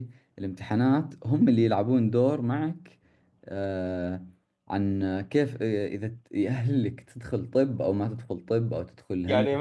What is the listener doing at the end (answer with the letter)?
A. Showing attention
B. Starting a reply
B